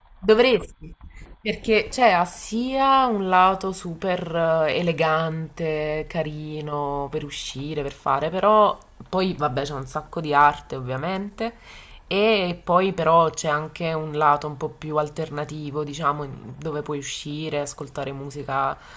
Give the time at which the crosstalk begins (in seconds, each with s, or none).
none